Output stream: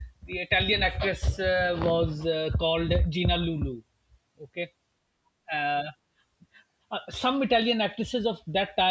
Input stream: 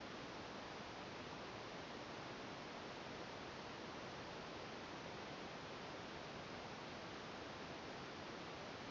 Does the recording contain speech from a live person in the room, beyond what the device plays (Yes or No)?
No